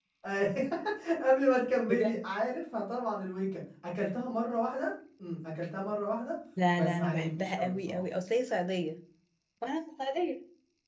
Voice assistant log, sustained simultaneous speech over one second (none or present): present